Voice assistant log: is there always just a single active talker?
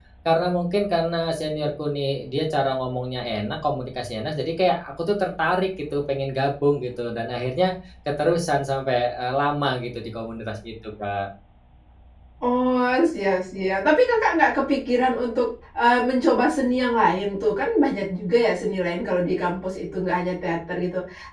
Yes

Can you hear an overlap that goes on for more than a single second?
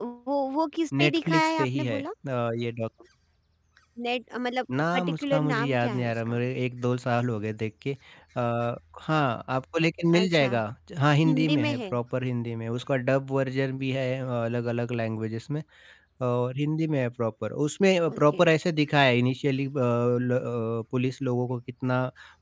Yes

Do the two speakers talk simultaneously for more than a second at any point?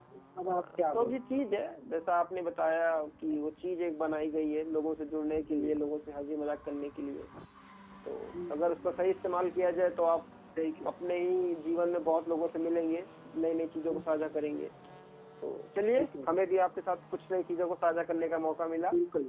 Yes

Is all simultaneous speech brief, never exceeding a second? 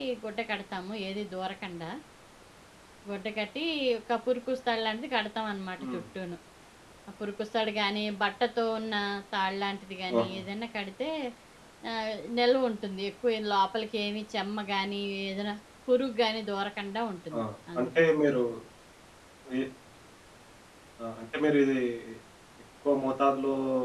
Yes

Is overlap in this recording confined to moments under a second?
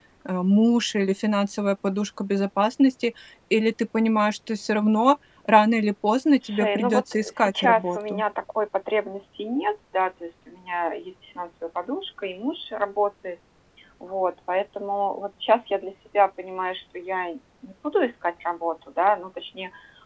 No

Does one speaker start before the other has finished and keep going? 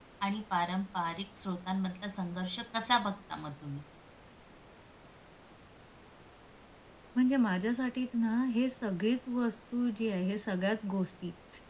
No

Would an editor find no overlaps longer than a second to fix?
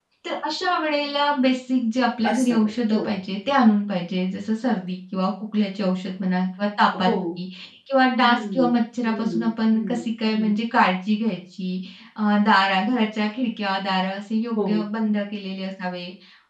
No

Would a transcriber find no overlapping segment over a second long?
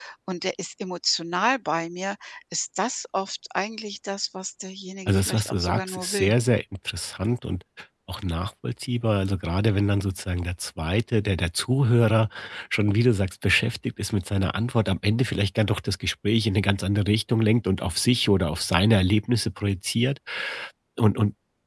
No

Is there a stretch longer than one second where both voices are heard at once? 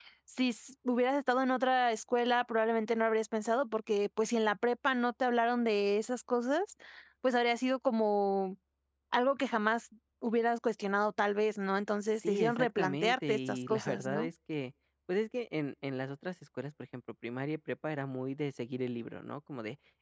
Yes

